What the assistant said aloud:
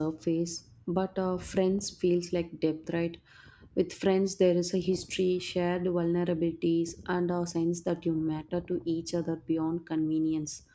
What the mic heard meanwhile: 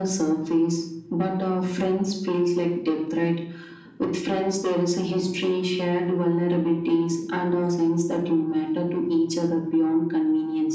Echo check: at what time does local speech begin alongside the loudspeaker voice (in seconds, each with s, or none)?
none